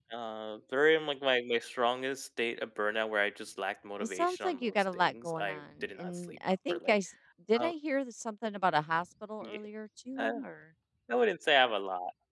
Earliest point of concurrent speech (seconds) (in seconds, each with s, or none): 4.0 s